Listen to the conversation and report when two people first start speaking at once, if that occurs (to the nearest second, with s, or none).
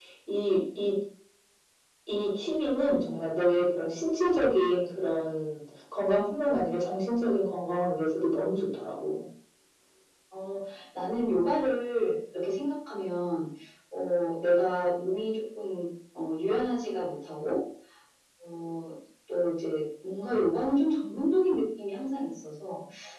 none